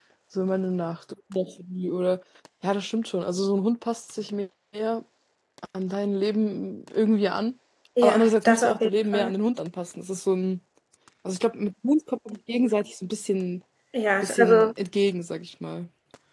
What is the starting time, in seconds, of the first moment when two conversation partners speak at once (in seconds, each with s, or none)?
8.0 s